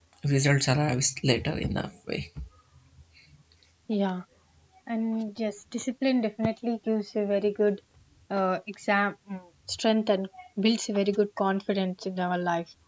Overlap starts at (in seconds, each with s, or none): none